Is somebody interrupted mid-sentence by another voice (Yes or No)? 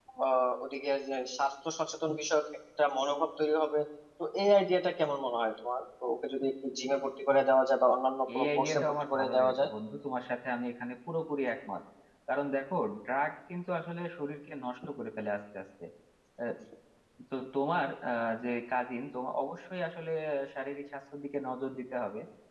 Yes